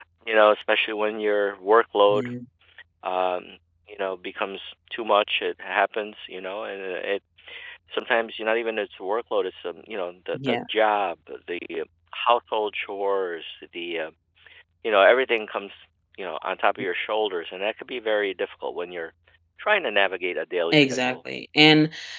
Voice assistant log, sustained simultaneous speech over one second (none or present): none